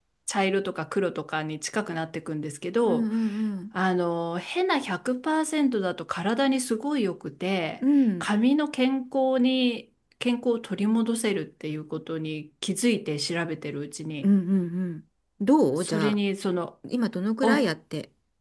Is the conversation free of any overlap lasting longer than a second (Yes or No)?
Yes